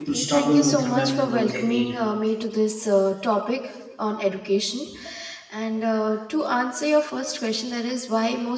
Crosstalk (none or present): present